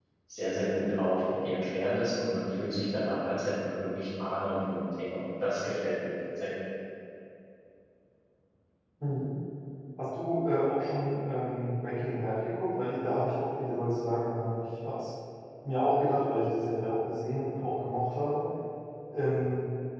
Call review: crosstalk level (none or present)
none